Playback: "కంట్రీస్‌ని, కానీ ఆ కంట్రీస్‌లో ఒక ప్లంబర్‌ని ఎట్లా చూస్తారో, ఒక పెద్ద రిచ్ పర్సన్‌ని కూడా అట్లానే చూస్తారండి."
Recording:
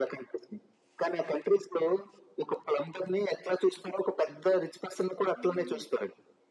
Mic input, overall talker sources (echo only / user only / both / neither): both